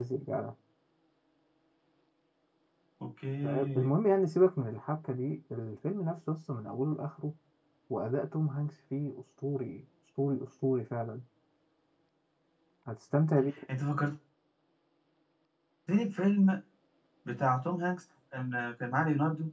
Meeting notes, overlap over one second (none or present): none